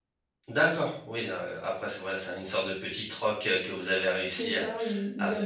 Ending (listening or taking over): taking over